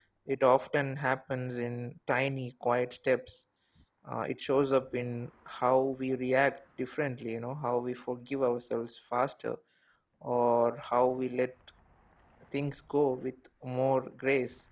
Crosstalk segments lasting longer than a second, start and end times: none

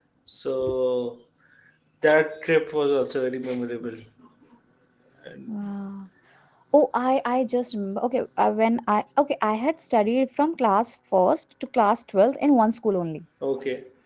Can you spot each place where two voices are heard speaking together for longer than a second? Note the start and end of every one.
none

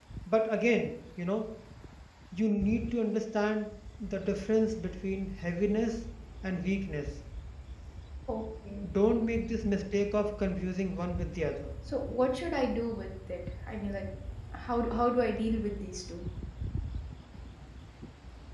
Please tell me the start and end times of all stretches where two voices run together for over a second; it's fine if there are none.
none

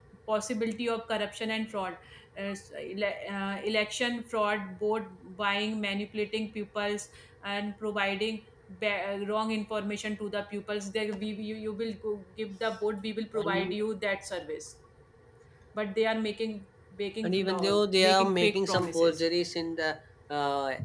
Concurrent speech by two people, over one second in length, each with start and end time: 17.2-19.2

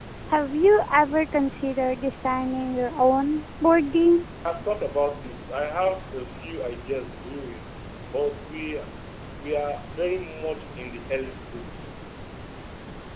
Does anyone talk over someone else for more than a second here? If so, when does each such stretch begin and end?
none

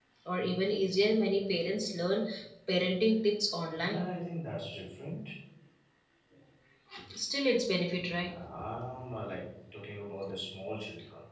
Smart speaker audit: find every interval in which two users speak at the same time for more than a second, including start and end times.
none

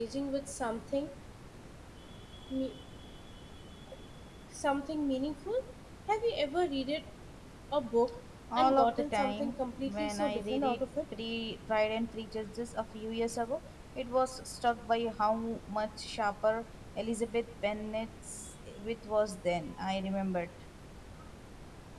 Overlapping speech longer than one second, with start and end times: 8.6-10.8

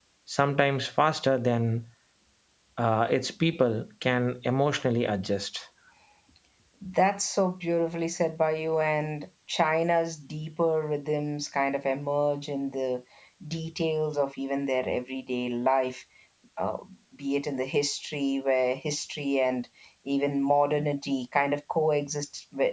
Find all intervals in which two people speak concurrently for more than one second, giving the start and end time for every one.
none

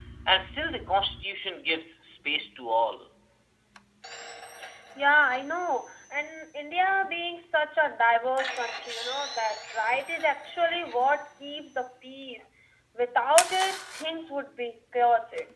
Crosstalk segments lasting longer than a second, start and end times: none

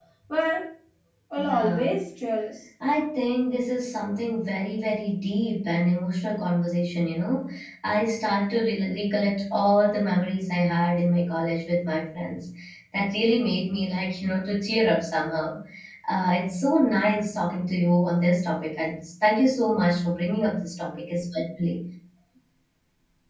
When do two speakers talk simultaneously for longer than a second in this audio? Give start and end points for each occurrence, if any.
none

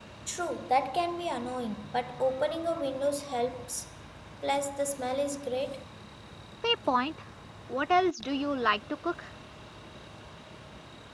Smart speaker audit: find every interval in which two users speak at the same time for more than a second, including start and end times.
none

